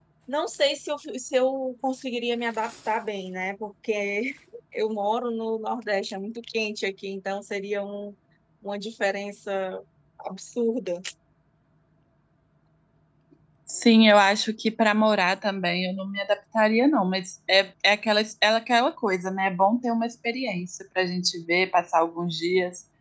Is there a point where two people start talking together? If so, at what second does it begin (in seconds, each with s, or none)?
none